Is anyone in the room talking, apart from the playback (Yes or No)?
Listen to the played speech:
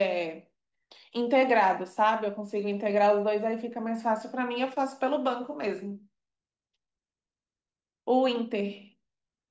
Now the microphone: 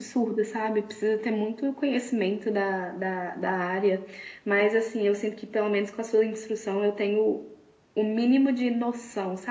Yes